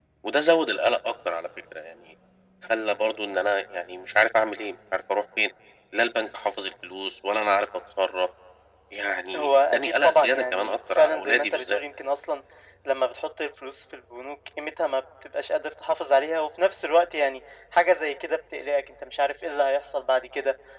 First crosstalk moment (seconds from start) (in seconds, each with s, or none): 9.4 s